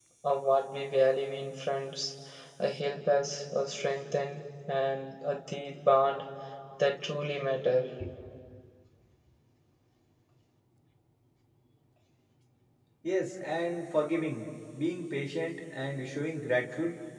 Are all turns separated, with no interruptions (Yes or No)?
Yes